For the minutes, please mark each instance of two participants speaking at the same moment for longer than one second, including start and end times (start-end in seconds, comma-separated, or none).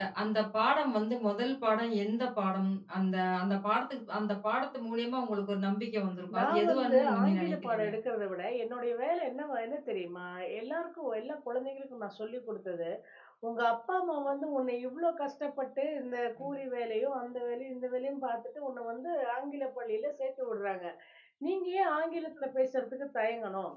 6.4-7.9